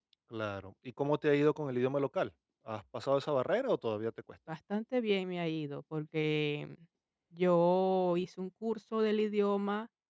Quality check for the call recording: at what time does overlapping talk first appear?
none

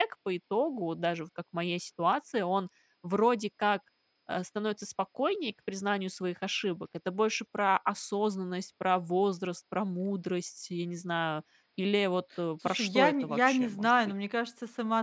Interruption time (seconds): 12.6 s

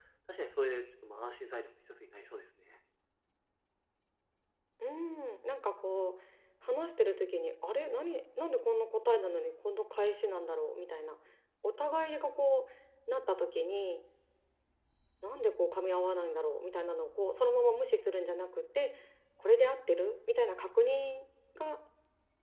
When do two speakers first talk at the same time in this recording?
none

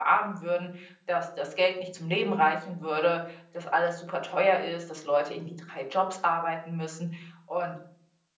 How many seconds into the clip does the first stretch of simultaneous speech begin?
none

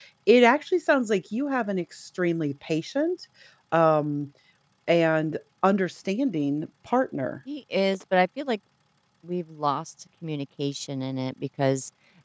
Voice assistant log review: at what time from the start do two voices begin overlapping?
none

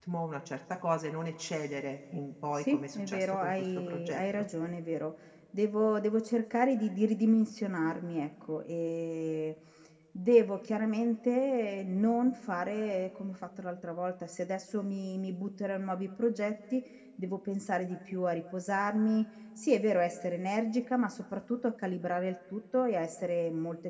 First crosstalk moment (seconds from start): 2.5 s

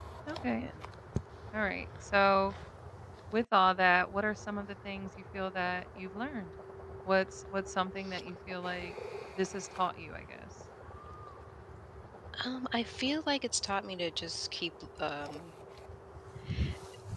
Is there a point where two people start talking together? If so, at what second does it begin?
none

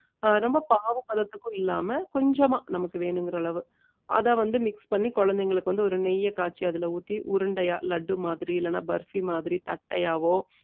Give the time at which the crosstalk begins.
none

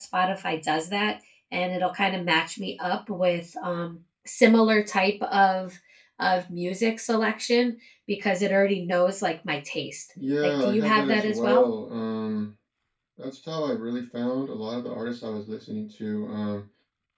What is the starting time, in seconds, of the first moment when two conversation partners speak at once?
10.4 s

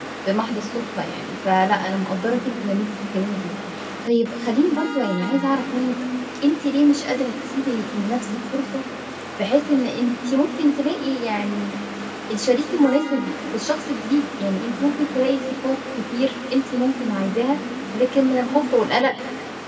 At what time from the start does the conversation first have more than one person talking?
none

